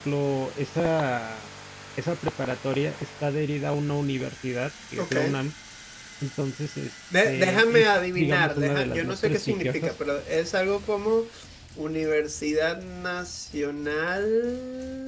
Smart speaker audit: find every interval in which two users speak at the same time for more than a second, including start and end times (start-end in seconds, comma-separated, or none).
7.2-9.9